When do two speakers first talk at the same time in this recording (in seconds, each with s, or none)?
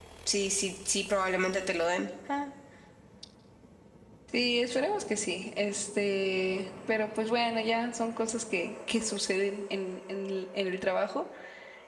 none